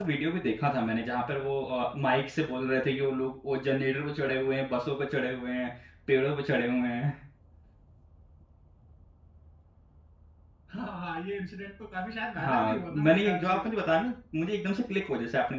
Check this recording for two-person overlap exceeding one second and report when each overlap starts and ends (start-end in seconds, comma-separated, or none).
12.4-13.6